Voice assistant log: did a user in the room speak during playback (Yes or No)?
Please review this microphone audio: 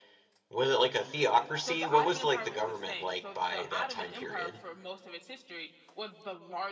Yes